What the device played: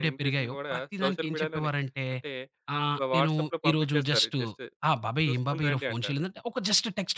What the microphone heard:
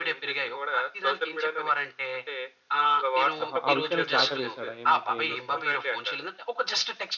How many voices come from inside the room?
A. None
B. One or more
B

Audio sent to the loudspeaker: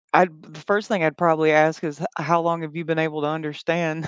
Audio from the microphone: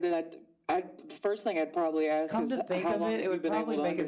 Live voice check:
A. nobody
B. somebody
B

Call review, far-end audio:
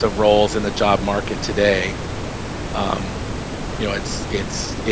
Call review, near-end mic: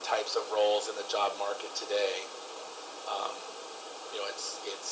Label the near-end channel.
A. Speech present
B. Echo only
B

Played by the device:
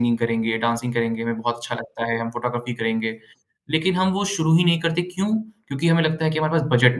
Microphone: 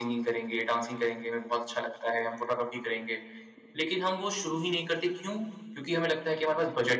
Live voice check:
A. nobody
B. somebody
A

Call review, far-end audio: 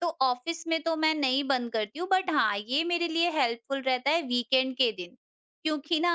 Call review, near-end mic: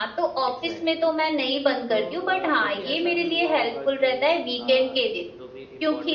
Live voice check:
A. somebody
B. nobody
A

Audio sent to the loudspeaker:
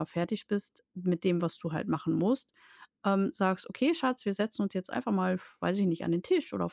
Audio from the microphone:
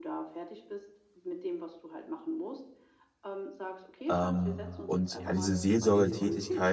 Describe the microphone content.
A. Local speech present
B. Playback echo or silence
A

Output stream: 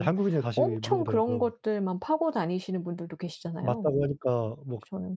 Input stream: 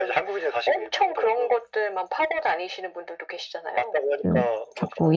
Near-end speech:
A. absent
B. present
B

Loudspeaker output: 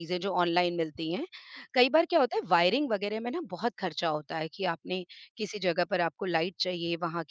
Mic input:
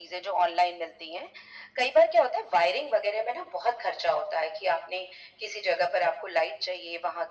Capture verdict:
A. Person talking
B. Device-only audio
B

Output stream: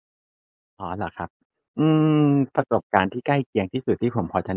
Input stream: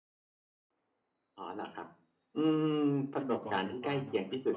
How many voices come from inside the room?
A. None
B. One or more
B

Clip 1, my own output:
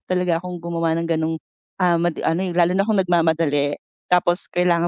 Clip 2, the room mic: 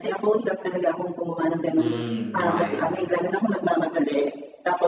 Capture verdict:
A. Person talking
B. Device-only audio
A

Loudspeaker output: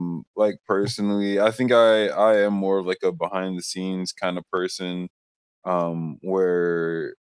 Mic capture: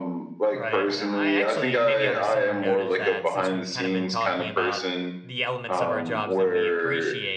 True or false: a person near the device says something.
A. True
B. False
A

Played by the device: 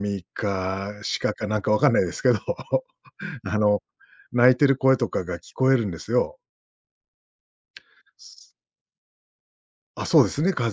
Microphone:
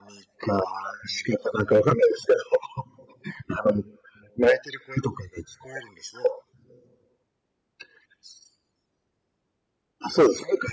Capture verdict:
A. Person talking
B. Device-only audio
B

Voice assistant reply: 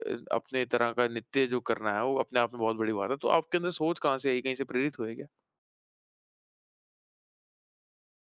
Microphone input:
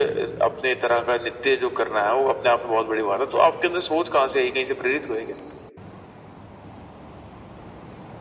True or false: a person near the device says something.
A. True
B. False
B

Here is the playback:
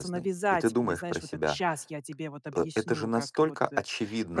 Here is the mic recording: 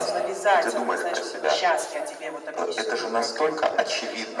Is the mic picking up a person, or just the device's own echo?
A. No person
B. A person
A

